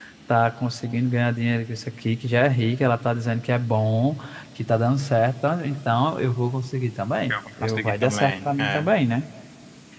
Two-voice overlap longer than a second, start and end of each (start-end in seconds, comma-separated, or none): 7.3-8.9